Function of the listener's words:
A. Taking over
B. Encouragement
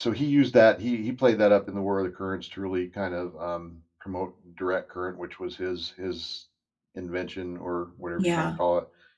B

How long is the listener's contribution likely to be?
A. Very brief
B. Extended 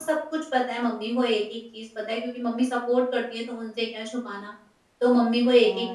B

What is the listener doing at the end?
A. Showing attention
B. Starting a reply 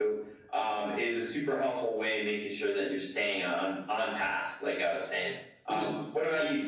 A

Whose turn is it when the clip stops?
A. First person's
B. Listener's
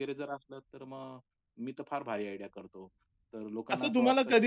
B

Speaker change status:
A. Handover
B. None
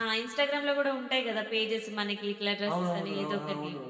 A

